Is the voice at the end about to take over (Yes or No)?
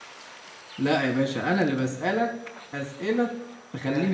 Yes